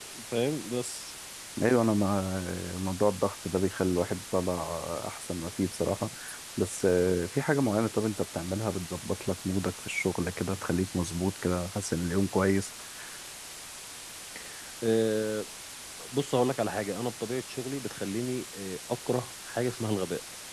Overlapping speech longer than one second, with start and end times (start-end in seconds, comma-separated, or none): none